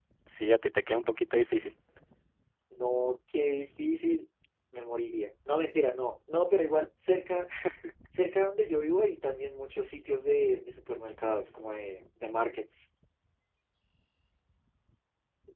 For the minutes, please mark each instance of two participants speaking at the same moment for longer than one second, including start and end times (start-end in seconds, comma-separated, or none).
none